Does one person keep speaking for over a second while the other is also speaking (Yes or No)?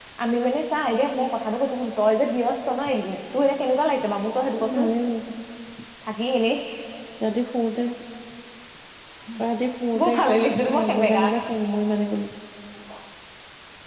Yes